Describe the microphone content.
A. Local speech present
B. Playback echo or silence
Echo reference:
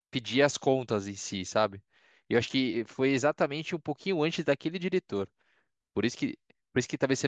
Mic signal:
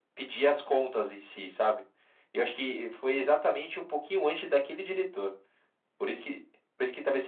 B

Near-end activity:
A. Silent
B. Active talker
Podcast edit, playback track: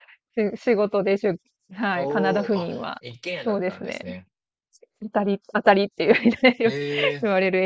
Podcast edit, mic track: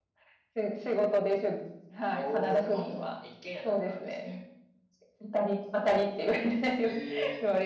A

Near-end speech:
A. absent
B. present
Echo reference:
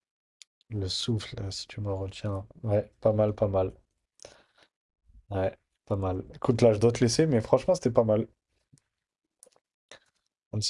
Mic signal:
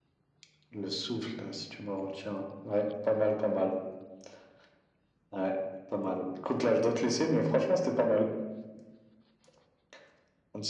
A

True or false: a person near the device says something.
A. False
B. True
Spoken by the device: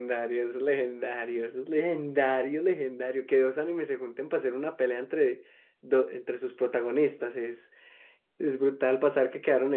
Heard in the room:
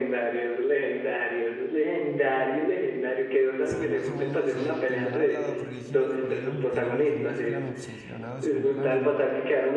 B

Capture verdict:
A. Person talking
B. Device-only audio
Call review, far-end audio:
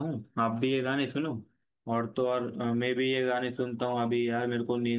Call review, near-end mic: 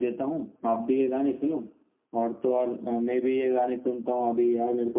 B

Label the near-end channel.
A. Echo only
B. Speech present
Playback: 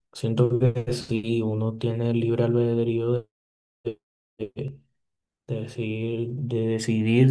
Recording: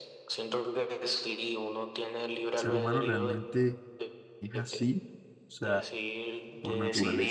B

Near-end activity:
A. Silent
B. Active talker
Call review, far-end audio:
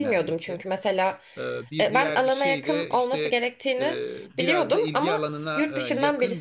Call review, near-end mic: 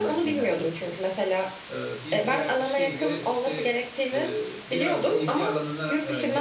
A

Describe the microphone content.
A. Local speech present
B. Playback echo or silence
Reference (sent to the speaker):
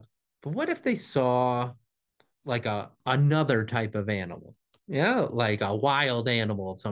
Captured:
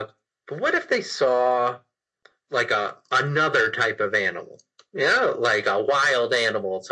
B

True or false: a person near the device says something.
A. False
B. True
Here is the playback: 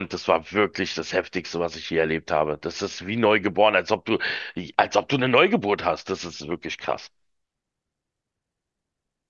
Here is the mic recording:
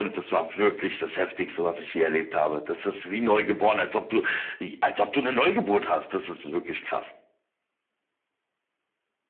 A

